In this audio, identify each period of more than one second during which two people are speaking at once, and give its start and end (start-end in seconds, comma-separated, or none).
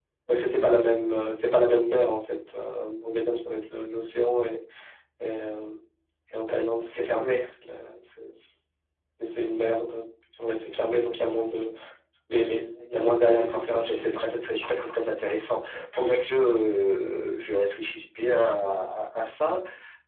13.3-14.6